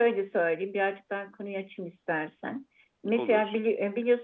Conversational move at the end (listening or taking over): listening